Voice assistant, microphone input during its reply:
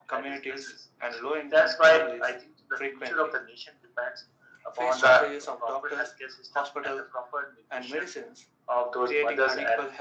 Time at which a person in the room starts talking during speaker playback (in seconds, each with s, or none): none